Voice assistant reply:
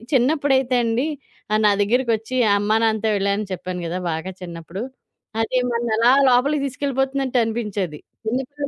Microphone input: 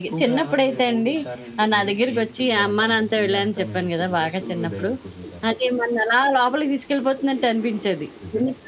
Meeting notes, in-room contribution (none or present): present